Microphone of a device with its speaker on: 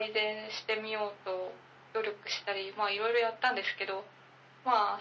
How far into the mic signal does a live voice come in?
none

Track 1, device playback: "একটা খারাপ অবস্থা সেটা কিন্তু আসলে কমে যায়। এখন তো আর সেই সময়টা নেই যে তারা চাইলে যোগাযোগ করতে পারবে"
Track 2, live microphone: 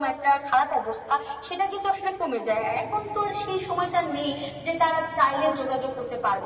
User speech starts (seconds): none

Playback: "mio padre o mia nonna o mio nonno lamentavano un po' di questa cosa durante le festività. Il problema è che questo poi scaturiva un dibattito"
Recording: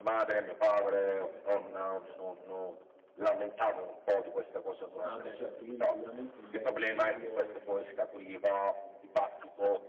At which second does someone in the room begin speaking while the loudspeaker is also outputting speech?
5.0 s

